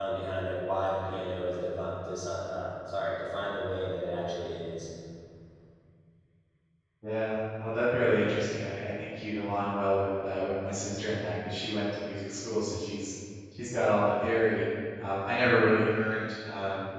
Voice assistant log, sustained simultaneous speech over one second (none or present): none